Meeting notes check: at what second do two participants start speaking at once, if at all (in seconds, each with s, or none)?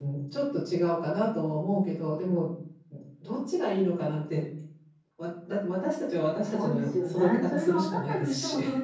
6.4 s